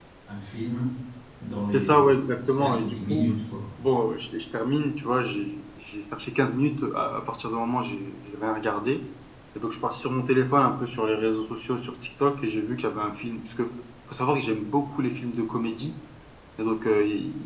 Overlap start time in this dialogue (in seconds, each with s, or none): 1.7 s